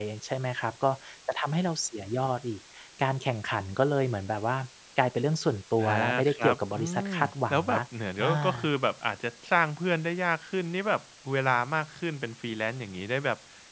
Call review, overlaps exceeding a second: present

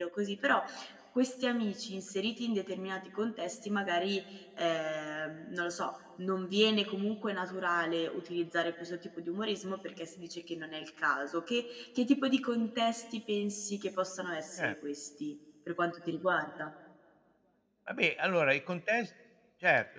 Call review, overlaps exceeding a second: none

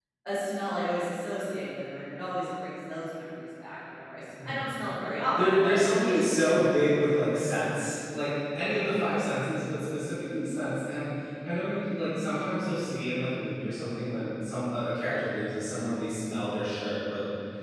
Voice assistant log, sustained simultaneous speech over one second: present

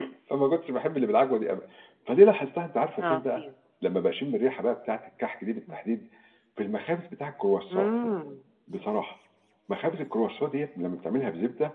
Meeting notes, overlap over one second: none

